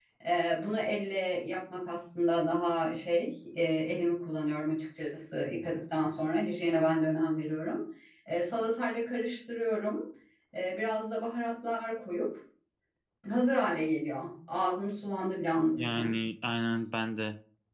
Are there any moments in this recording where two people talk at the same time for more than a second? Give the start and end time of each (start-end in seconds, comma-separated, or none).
none